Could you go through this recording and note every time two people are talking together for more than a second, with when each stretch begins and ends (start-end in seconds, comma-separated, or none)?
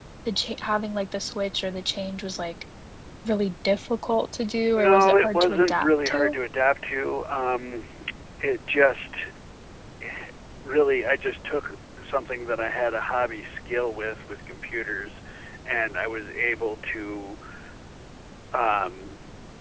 4.7-6.3